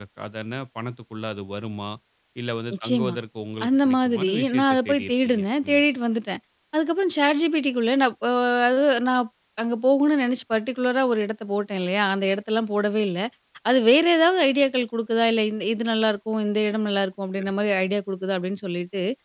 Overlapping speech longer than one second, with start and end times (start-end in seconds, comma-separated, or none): 3.7-5.8